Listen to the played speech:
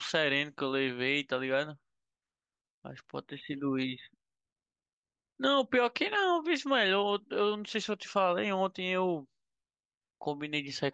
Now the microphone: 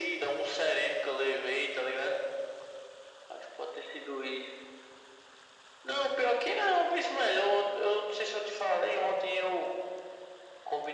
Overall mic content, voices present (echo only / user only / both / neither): echo only